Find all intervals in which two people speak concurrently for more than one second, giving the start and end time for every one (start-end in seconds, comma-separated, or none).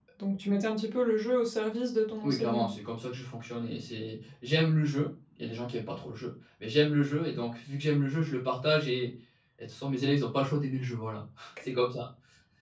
none